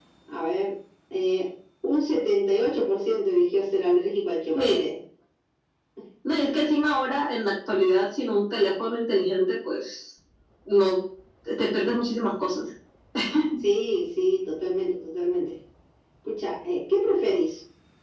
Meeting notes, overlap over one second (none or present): none